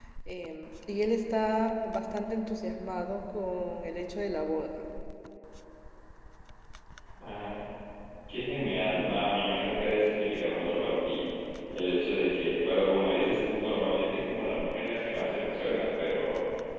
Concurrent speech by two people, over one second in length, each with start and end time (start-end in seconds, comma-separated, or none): none